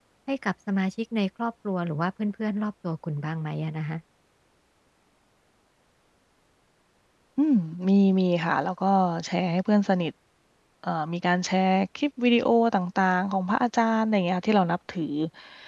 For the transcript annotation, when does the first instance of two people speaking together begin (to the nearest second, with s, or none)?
none